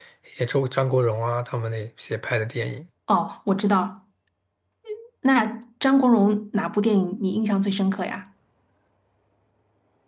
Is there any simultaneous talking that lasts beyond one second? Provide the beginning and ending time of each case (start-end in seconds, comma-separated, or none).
none